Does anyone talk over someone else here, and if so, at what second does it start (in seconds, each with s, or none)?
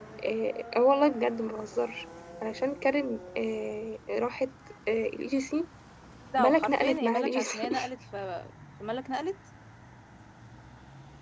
6.4 s